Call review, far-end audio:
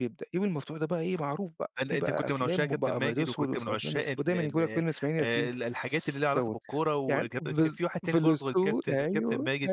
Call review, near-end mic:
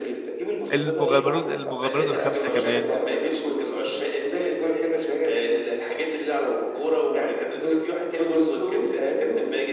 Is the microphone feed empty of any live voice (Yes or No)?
No